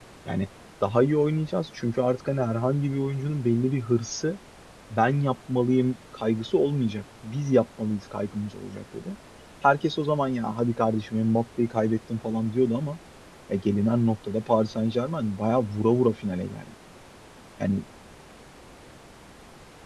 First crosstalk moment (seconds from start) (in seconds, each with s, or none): none